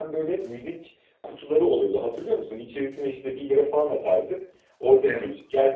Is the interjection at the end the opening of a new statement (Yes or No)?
No